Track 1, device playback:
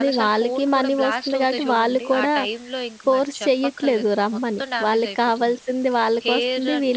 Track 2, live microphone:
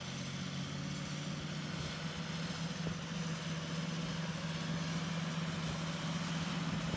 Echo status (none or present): none